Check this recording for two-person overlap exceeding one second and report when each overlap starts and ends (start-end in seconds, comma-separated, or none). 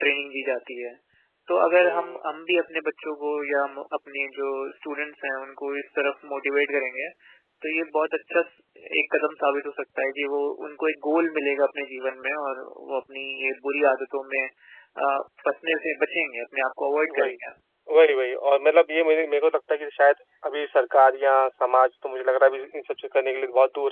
none